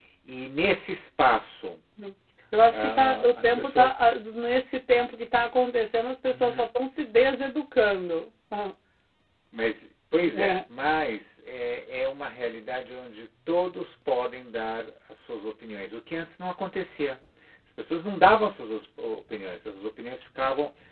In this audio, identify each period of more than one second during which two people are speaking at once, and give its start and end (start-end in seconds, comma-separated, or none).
2.7-3.9